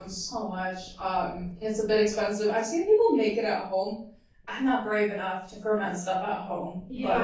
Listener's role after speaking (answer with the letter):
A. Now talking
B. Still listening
A